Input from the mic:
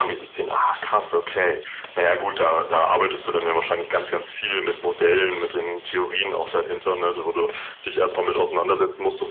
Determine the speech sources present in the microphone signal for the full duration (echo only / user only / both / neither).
echo only